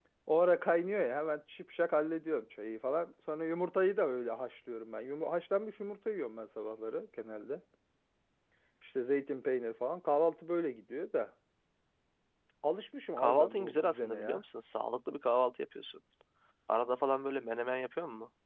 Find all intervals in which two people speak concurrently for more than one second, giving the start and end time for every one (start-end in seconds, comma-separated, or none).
13.2-14.4